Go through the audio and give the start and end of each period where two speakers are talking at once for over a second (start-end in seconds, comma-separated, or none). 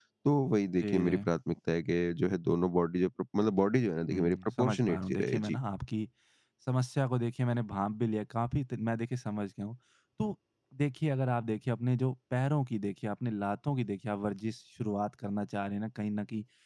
4.1-5.6